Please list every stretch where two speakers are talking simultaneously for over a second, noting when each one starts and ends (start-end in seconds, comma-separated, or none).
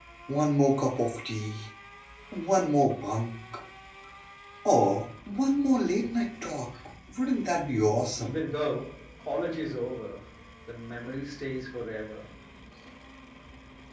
none